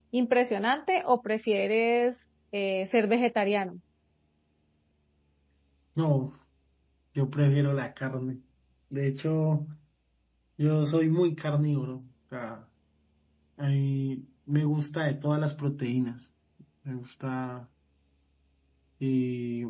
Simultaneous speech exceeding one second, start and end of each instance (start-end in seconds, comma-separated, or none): none